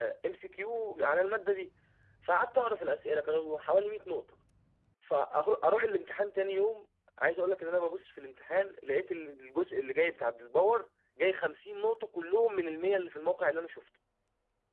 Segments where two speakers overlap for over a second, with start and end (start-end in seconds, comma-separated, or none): none